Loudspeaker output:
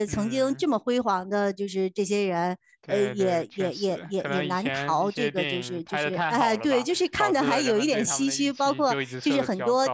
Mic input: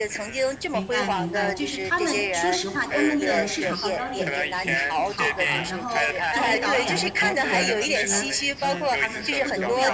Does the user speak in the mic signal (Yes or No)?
Yes